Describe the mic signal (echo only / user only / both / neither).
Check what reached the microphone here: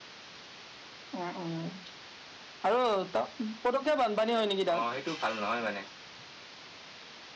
both